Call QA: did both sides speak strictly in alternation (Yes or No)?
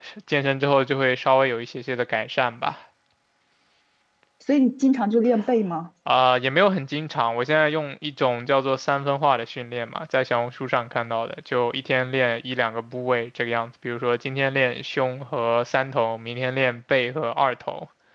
Yes